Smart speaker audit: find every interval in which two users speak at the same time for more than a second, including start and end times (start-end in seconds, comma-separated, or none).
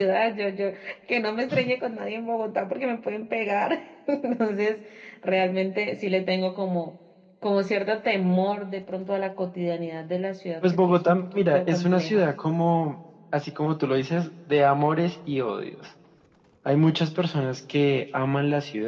10.9-12.2